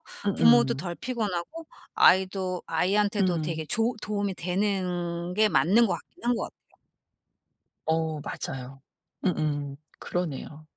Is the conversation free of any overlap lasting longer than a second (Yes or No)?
Yes